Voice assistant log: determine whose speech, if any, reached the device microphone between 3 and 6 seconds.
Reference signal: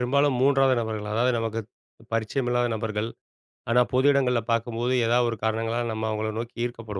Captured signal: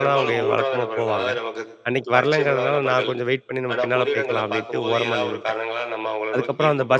both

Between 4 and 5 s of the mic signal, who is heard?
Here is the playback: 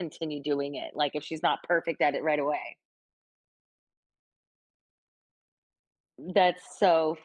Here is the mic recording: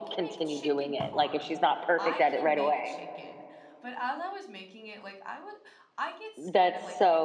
user only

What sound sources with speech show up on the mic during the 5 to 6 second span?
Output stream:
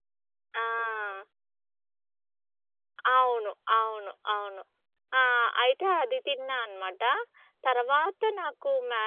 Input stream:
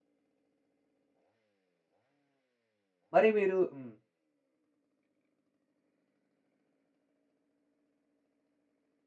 neither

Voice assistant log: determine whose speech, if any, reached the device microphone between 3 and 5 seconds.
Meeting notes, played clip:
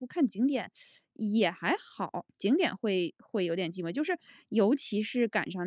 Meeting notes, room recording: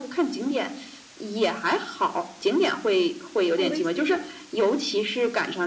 both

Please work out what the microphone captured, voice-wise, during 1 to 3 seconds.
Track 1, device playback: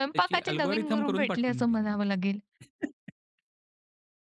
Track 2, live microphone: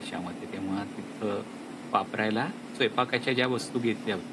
user only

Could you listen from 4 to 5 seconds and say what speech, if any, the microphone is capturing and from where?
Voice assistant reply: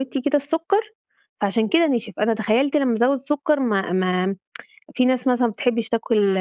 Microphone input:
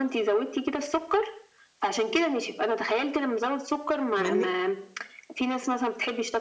both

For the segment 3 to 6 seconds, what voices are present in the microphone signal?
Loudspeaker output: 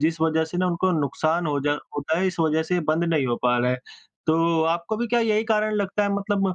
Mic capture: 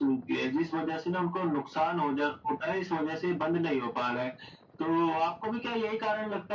echo only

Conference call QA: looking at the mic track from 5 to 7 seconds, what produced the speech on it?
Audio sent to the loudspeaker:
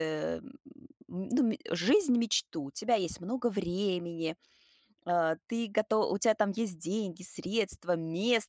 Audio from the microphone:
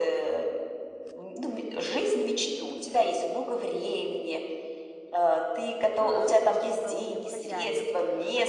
both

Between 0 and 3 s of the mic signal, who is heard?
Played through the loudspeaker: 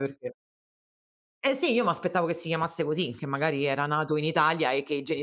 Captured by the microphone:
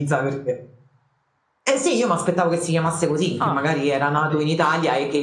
echo only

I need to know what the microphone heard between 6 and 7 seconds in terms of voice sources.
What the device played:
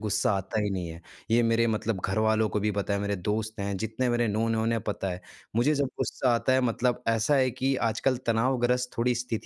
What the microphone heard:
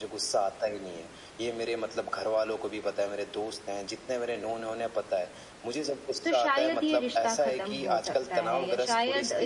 both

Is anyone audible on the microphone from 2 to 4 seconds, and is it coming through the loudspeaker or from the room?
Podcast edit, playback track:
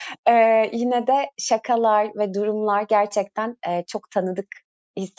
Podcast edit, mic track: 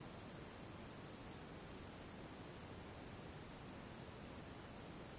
neither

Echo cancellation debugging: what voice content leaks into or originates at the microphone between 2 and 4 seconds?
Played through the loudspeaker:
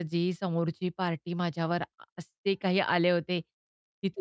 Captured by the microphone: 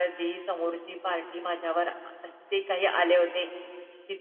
echo only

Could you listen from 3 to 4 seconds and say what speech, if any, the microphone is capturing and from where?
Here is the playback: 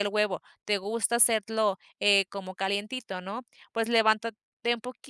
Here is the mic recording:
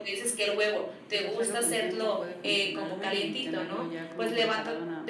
both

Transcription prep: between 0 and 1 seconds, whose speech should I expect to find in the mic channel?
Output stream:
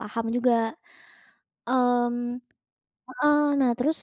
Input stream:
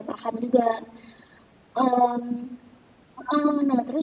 echo only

